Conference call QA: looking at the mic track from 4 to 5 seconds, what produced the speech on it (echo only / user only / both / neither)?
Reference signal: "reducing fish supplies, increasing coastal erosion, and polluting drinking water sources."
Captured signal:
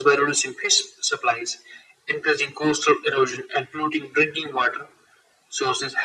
echo only